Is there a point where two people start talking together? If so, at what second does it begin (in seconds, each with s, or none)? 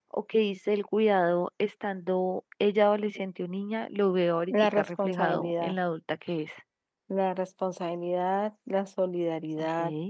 4.5 s